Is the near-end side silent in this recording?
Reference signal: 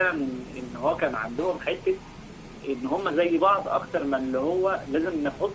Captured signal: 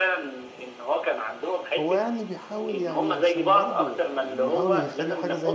No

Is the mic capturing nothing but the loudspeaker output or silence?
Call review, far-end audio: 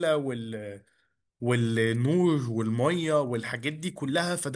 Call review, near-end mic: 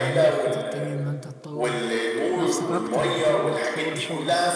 No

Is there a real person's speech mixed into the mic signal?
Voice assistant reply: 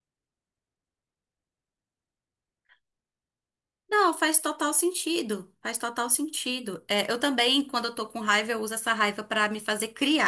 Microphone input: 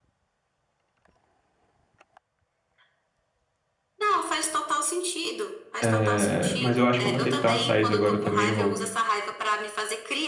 Yes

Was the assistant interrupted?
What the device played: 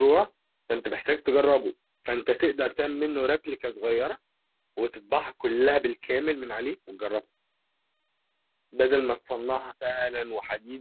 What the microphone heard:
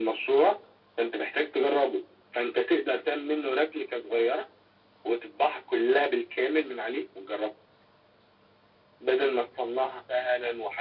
No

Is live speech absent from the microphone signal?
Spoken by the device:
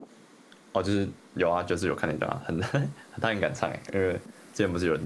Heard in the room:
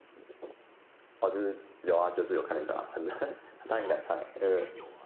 No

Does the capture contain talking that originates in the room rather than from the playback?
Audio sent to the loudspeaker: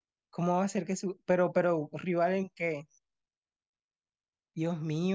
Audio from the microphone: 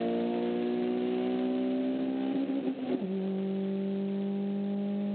No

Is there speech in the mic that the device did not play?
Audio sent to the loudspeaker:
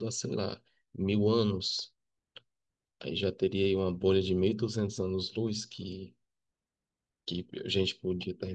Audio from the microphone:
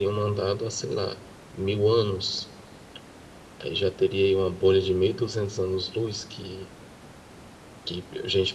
No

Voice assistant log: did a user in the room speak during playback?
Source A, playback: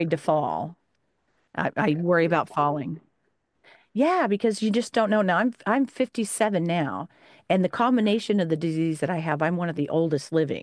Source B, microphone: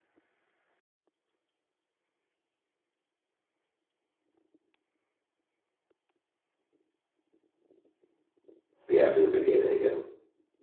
Yes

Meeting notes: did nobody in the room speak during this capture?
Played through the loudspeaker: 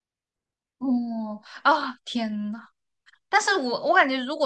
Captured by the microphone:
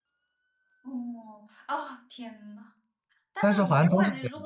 No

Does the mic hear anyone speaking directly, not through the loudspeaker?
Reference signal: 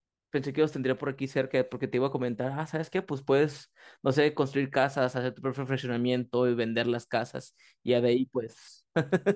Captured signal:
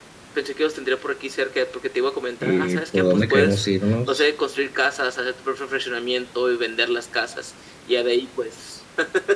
Yes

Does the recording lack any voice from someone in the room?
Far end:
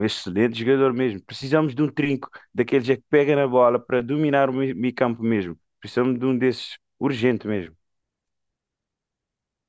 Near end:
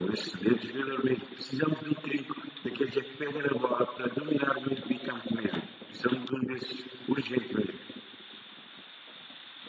Yes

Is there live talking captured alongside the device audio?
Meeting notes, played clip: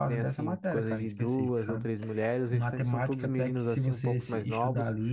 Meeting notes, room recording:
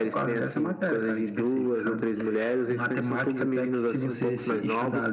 No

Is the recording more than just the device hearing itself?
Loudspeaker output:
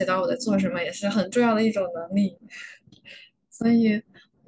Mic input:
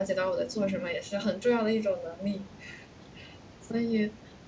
No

